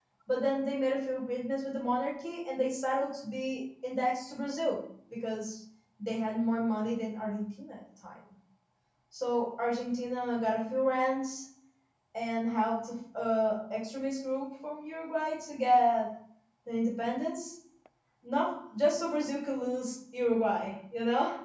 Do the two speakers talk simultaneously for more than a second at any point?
No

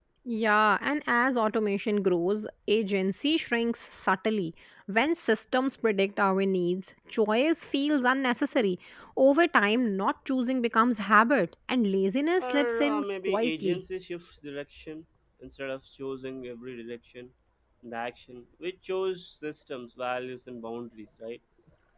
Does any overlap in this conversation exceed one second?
Yes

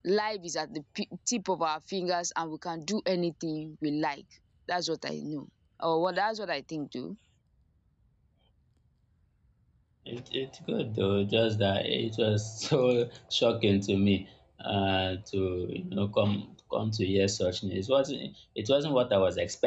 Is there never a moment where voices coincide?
Yes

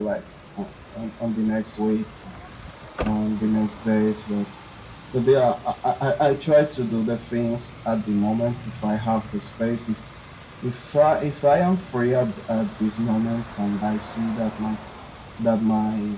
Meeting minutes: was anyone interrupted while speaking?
No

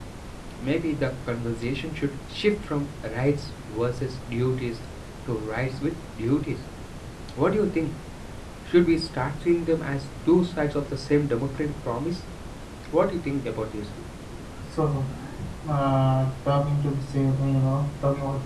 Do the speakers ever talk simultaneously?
No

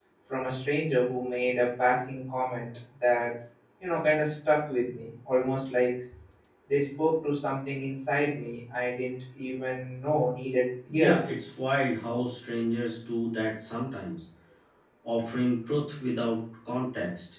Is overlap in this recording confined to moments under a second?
Yes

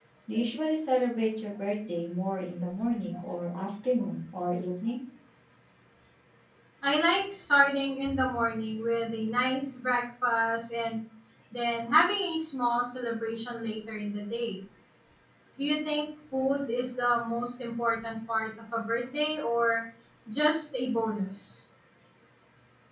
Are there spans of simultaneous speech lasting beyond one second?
No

